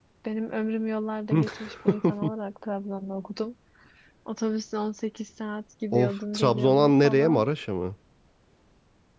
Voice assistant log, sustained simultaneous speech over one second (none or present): present